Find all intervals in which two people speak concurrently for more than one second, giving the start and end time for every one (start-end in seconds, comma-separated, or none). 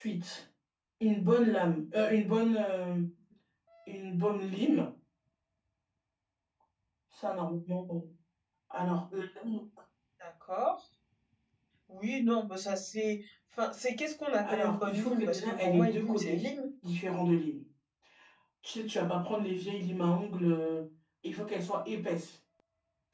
14.4-16.4